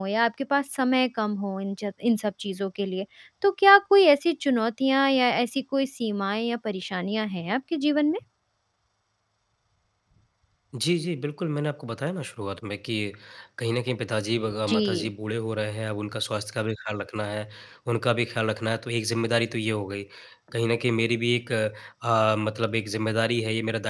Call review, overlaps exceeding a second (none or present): none